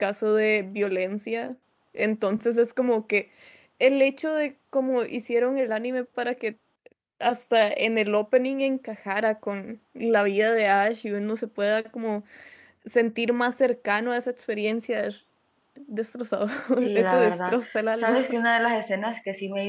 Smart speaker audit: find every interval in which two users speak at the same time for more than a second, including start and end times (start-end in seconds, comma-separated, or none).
17.0-18.2